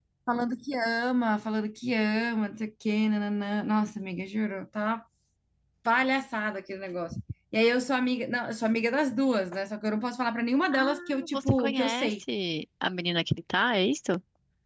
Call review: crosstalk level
present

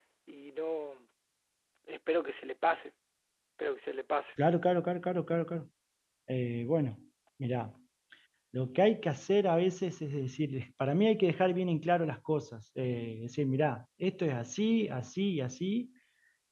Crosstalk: none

